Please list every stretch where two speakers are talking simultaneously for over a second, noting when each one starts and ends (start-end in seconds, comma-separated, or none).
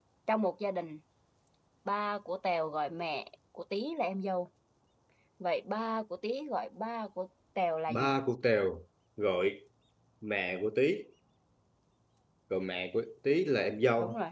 none